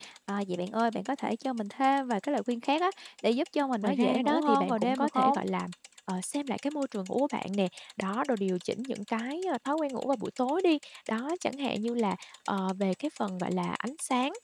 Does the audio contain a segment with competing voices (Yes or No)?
Yes